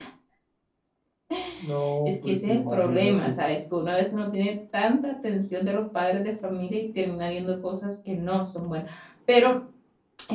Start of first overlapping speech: 2.0 s

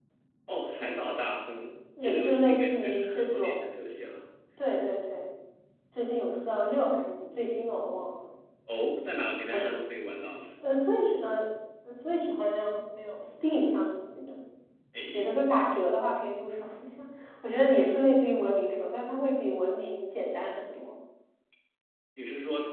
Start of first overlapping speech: 2.0 s

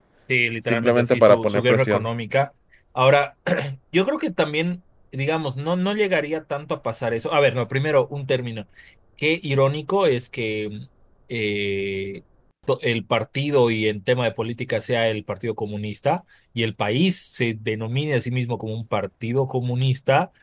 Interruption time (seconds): 0.7 s

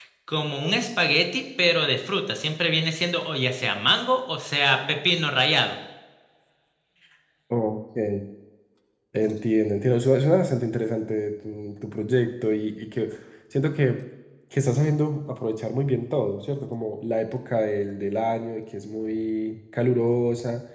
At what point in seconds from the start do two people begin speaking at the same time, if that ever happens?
none

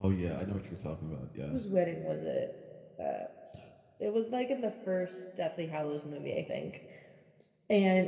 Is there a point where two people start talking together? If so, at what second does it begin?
none

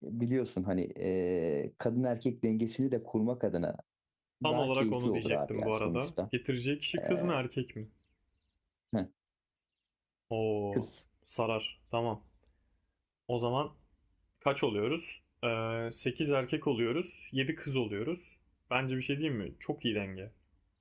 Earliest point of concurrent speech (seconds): 4.4 s

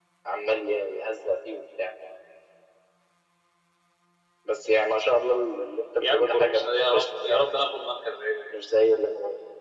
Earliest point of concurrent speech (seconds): 6.0 s

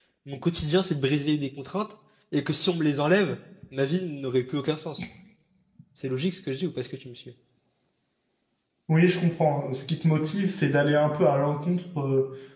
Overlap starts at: none

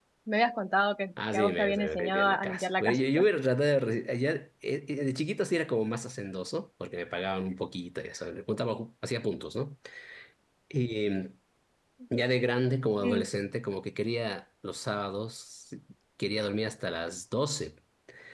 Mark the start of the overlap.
1.2 s

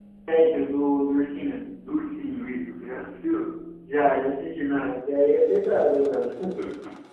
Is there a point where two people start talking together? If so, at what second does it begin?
none

